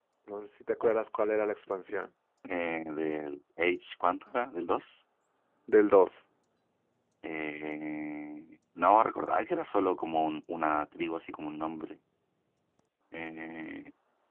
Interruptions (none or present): none